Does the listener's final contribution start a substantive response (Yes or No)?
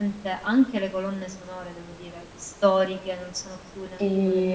Yes